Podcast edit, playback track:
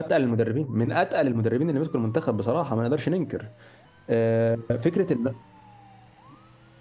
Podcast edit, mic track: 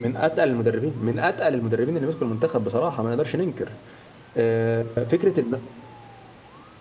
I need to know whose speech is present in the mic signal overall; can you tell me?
echo only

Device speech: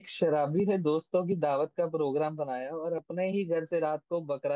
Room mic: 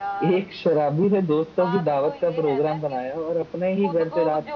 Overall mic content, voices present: both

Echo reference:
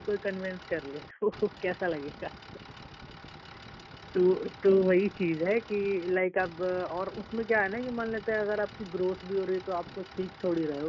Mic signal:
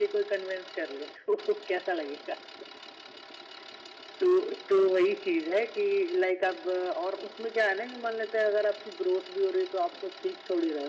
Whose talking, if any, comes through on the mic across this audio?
echo only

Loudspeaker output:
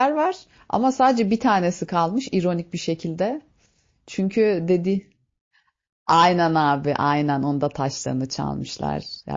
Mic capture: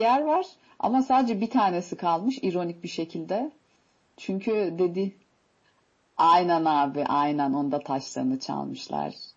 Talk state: echo only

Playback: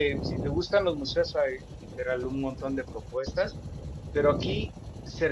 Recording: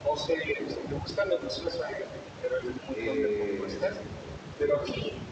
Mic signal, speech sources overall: both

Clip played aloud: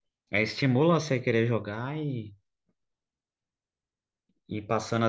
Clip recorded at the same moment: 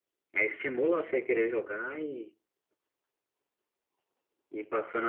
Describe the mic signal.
echo only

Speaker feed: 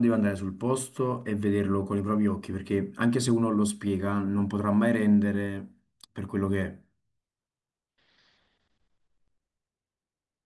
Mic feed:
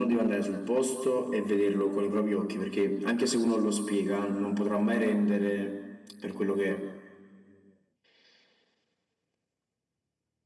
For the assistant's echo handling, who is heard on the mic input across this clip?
echo only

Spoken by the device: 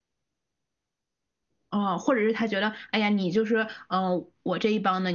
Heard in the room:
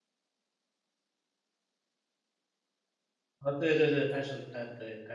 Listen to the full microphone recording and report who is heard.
user only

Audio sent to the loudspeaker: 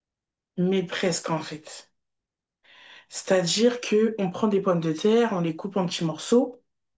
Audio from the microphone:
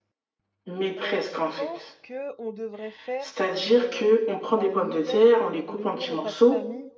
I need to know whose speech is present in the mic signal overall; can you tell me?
both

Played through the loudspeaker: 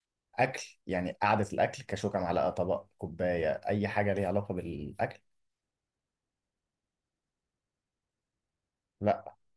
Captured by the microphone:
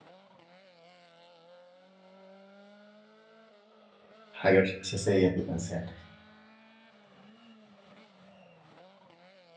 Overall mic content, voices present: user only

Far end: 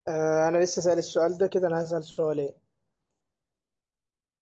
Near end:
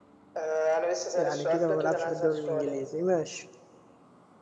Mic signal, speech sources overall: both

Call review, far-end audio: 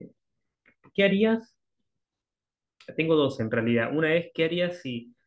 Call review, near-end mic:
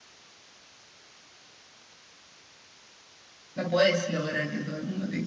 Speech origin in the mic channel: user only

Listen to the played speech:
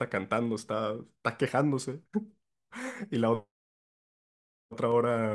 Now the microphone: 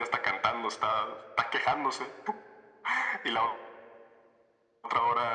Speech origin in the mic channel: echo only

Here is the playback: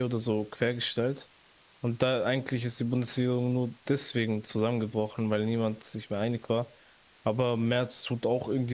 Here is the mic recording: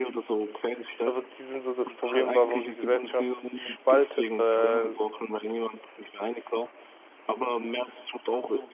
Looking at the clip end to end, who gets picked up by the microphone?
both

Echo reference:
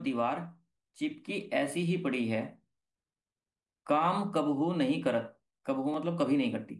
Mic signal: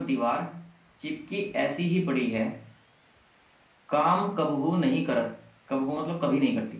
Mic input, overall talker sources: echo only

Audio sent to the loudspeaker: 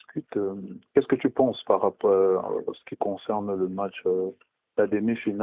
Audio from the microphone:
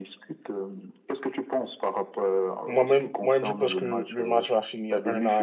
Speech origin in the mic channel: both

